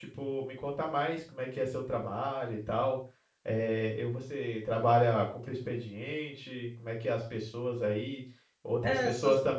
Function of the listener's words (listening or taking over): listening